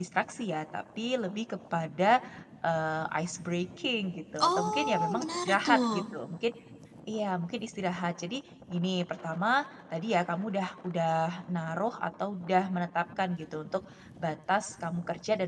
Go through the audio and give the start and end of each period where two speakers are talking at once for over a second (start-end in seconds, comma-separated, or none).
4.5-6.0